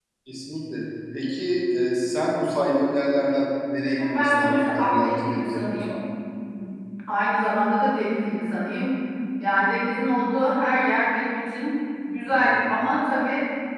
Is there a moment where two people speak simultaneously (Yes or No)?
Yes